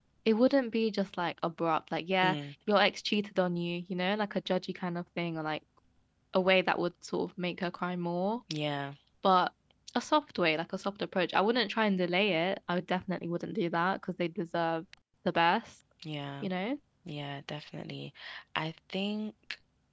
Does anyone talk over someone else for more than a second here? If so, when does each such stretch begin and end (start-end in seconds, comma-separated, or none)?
none